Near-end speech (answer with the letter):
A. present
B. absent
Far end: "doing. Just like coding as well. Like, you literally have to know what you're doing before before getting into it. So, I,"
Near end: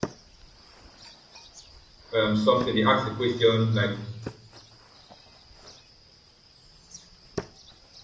A